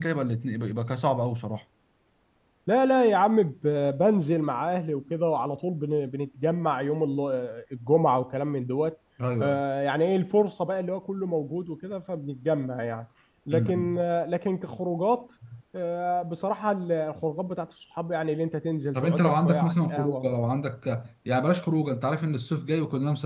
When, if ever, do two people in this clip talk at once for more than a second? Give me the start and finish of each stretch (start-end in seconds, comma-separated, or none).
18.9-20.3